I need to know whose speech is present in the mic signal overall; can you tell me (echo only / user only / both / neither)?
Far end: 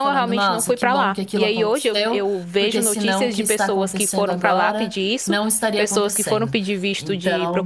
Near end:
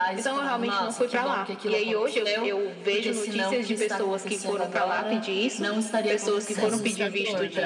both